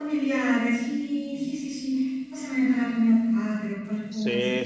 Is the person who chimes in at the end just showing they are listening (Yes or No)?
No